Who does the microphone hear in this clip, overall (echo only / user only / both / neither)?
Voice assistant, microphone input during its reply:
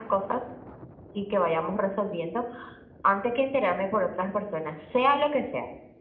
echo only